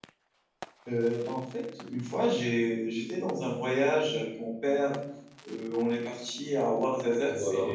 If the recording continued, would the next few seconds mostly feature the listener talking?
No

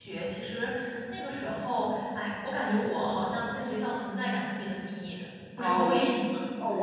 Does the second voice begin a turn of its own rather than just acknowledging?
Yes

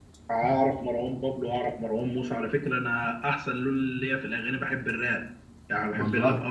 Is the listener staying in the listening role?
Yes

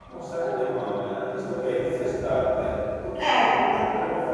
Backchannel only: Yes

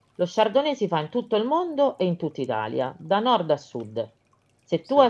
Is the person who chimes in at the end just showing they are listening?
Yes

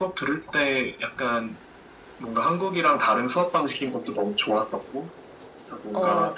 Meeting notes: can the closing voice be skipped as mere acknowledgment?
Yes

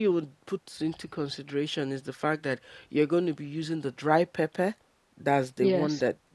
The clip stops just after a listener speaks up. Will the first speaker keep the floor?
Yes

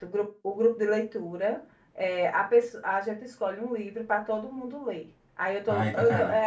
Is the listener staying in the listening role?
Yes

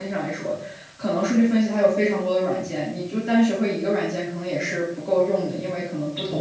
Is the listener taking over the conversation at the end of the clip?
No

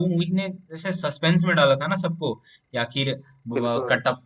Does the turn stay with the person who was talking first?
Yes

